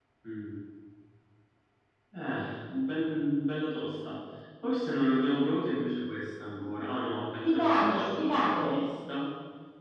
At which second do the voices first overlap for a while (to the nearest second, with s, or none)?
7 s